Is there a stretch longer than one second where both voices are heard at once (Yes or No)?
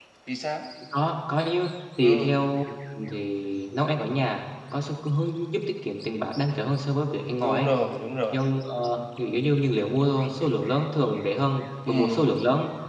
No